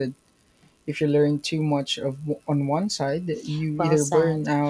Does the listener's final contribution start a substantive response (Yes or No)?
Yes